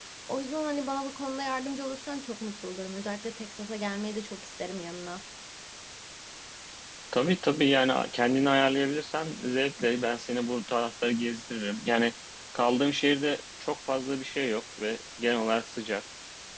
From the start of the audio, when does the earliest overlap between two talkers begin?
none

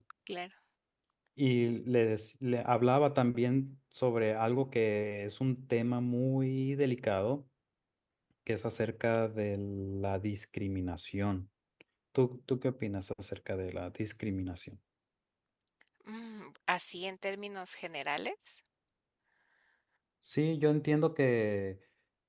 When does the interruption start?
none

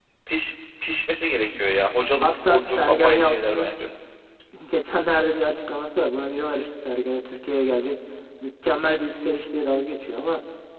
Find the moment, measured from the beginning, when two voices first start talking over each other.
2.2 s

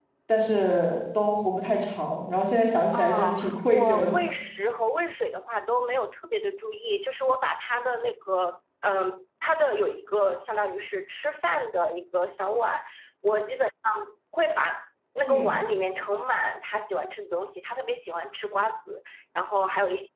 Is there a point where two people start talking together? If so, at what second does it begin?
2.9 s

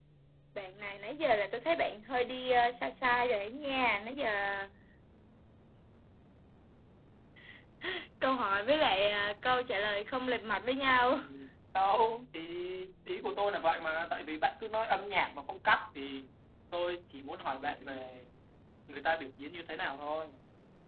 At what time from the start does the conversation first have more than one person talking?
none

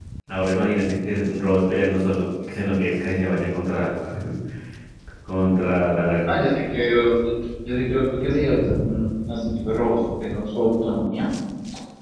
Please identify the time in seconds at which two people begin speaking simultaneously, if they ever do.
none

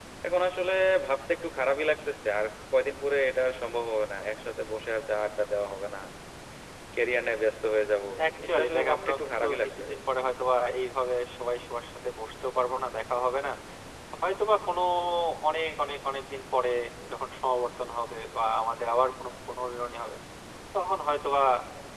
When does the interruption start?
8.2 s

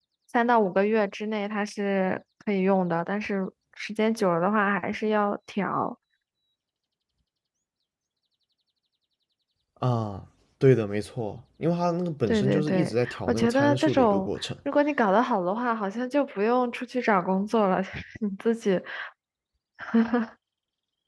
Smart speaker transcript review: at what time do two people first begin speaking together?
12.3 s

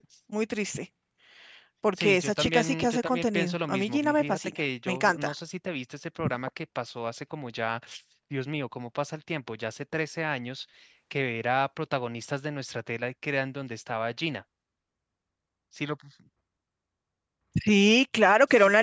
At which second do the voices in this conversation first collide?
2.0 s

